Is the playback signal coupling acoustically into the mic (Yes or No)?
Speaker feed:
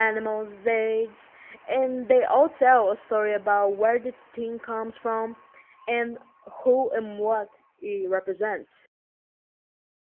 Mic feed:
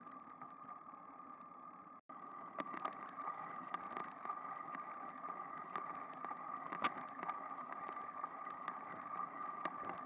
No